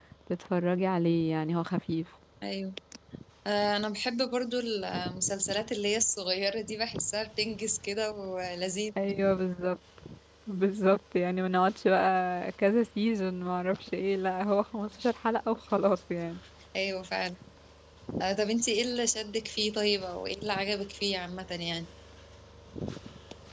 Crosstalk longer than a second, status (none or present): none